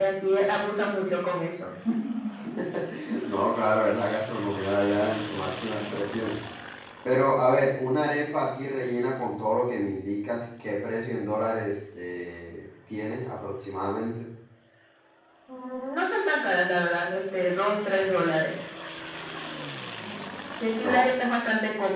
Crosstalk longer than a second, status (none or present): none